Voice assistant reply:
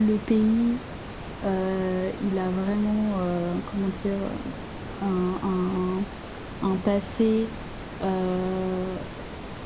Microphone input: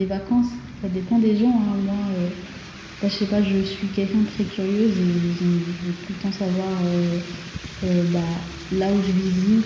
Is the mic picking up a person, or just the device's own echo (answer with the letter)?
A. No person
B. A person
B